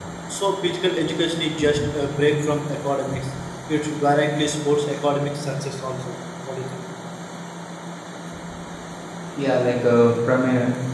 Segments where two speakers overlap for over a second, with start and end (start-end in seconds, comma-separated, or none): none